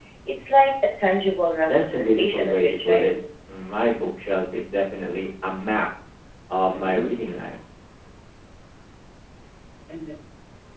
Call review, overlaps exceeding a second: present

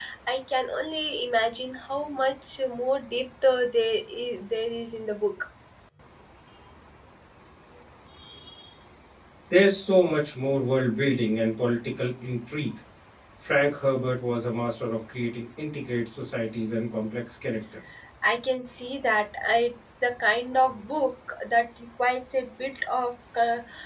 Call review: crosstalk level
none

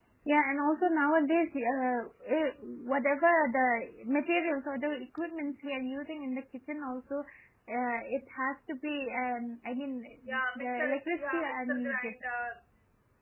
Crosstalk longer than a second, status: present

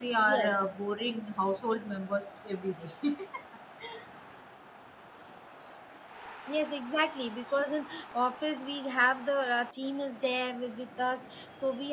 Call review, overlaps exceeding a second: none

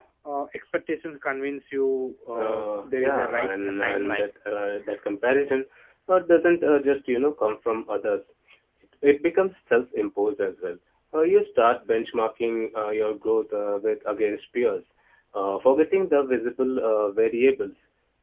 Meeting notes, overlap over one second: present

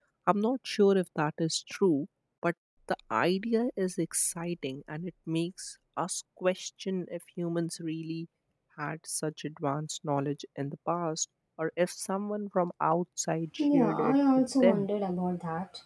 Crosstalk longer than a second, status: present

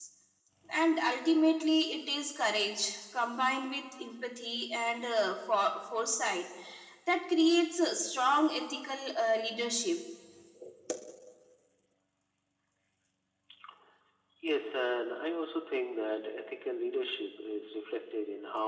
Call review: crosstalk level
none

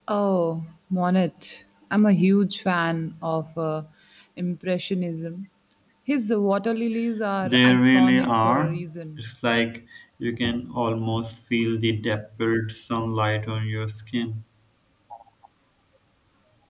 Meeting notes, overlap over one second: present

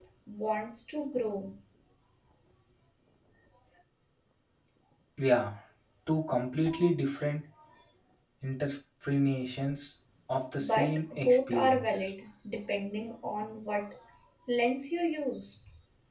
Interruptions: present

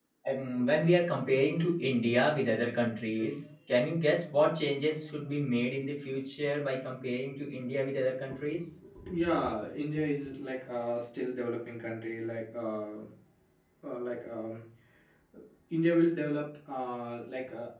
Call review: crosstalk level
none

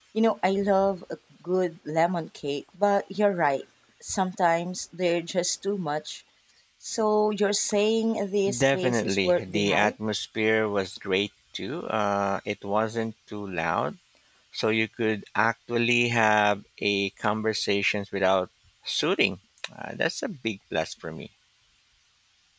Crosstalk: present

